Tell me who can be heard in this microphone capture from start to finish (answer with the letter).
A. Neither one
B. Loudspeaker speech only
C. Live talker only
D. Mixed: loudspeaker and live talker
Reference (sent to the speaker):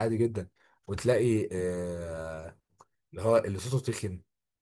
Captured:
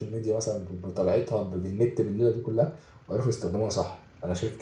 C